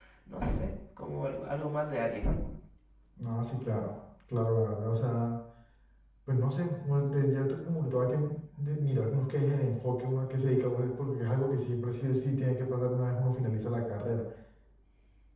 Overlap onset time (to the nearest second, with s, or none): none